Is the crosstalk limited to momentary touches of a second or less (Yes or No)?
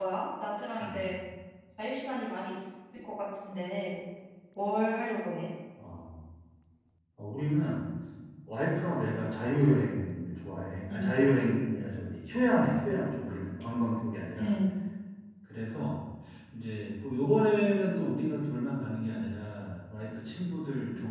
Yes